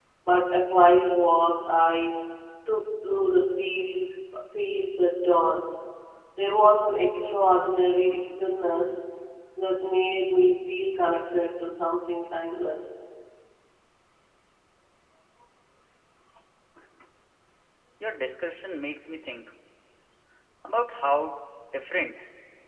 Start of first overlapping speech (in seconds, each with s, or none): none